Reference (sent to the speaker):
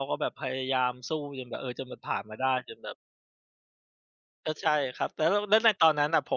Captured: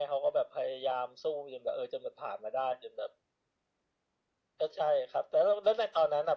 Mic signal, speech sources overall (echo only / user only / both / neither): echo only